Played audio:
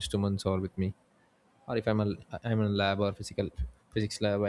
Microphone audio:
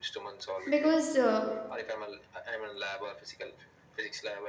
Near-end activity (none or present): present